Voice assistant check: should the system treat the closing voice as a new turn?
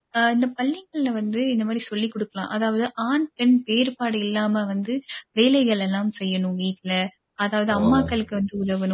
No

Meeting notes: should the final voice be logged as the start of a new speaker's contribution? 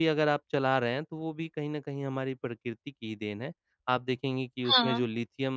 No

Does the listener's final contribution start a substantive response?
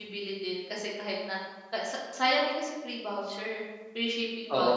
Yes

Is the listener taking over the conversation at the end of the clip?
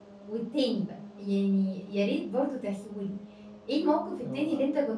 No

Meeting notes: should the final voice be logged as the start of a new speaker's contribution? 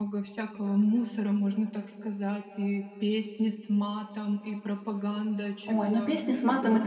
Yes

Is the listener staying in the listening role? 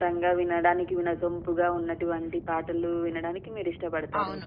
No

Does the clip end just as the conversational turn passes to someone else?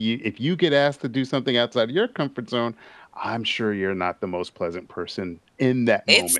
Yes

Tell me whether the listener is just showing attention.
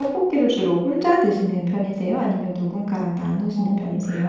No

